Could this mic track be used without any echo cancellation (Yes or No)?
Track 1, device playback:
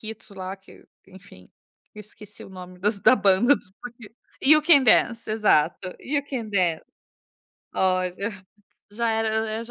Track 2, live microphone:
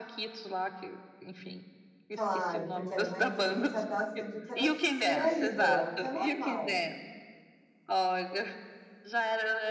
No